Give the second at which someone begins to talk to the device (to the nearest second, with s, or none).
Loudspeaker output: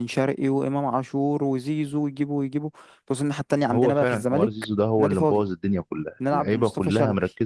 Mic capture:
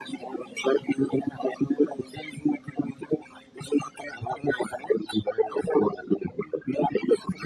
none